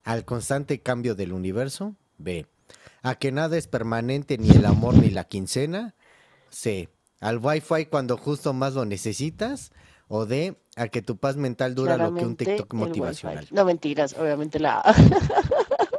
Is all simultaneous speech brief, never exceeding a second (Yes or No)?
No